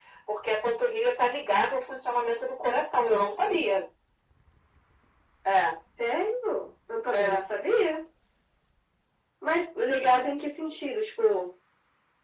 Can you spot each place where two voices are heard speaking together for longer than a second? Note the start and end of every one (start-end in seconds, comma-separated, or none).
none